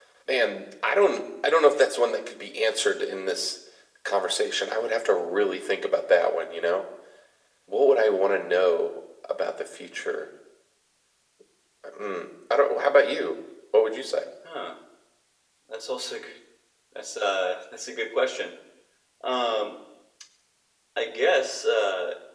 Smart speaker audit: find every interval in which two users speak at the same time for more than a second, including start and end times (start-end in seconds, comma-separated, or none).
none